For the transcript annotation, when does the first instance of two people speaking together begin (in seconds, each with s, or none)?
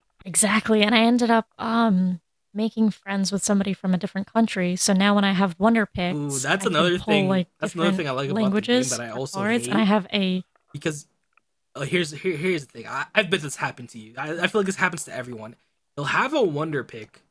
6.1 s